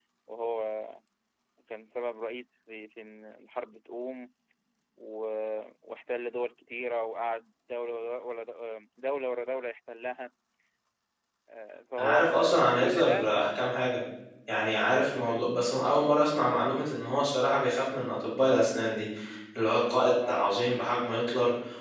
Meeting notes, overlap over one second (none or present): present